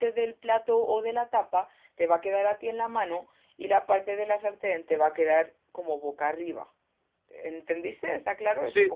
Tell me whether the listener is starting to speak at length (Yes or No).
Yes